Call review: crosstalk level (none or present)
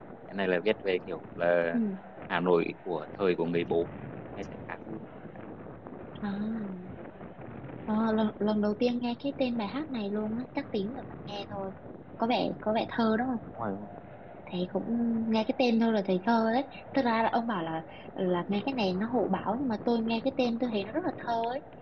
none